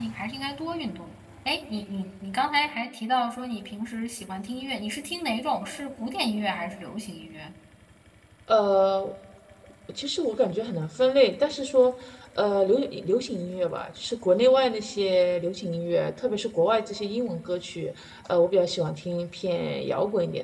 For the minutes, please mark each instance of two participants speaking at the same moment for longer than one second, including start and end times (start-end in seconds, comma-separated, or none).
none